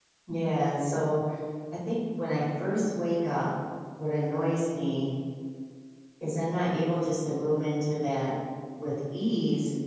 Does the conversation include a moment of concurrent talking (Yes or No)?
No